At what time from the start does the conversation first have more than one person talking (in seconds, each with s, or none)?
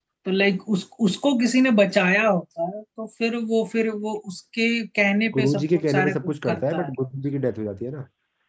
5.3 s